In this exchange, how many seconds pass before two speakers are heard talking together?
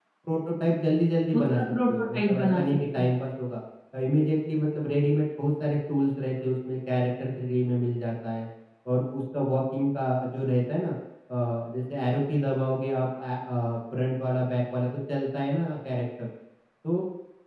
1 s

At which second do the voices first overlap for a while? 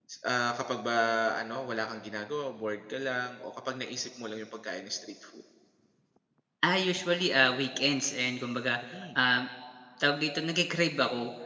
none

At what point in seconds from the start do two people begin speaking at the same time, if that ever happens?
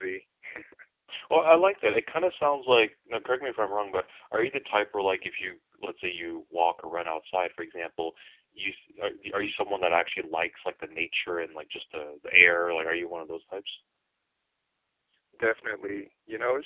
none

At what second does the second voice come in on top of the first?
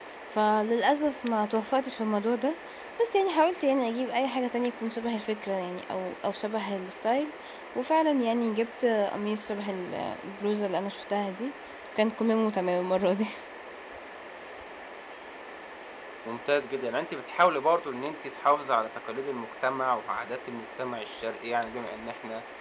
none

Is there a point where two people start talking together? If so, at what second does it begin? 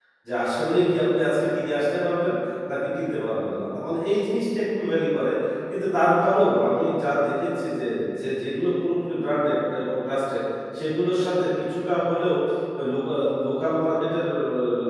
none

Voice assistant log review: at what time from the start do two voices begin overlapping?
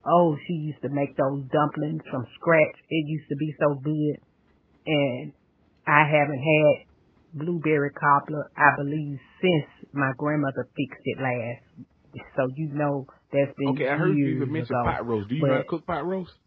14 s

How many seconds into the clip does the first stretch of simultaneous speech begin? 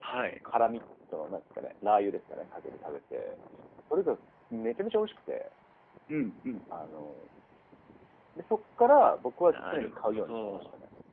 9 s

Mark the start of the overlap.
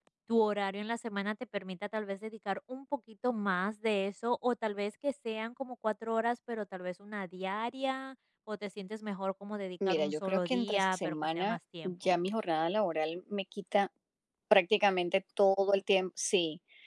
10 s

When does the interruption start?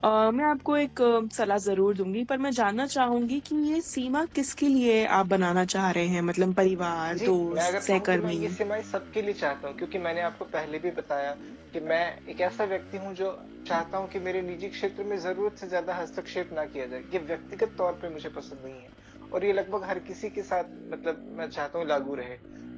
7 s

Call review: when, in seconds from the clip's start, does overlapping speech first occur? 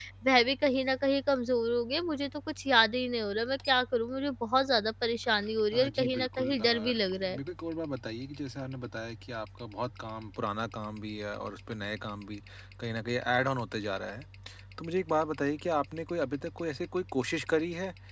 6 s

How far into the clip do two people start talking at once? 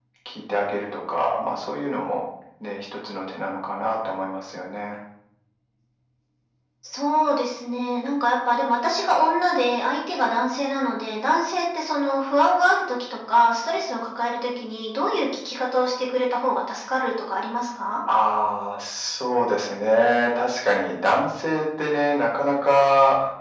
none

